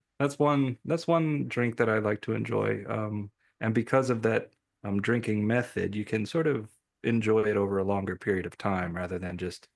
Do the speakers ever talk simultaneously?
No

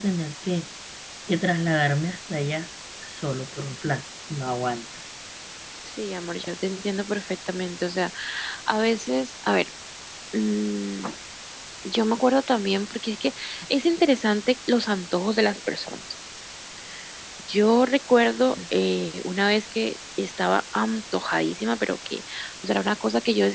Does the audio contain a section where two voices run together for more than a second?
No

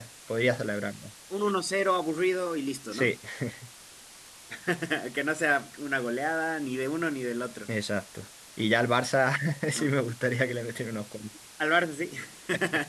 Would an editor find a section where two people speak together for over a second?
No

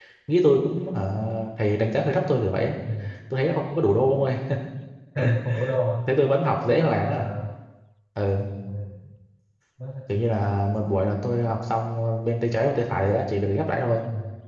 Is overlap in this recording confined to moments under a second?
Yes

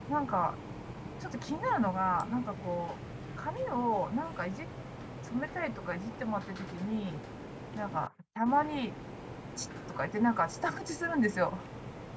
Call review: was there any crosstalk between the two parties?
No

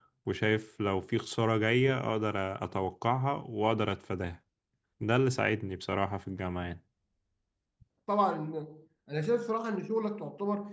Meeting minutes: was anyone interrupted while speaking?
No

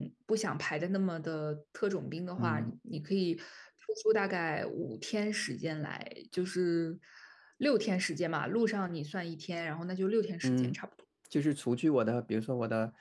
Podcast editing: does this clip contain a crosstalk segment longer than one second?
No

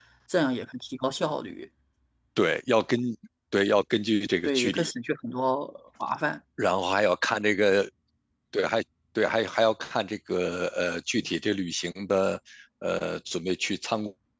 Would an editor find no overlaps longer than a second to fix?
Yes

